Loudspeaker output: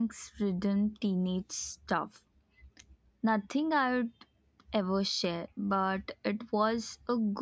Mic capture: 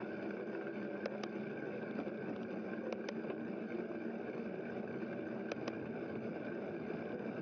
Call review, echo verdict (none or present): none